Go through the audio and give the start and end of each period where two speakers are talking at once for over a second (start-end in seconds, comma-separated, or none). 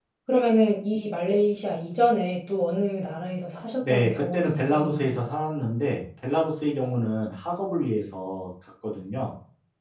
3.8-5.2